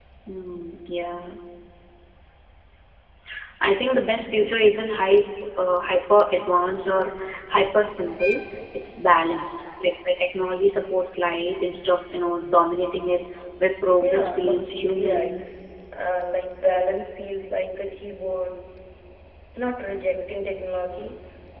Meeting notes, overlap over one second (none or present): present